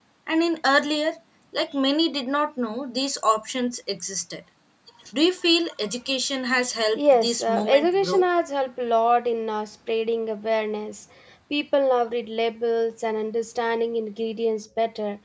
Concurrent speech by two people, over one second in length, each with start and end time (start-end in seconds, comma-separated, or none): 7.0-8.2